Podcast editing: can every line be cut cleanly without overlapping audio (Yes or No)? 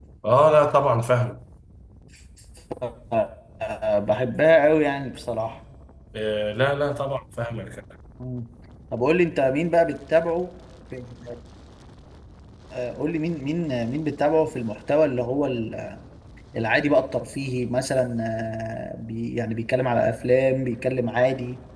Yes